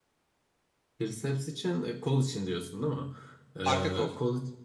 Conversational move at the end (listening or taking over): listening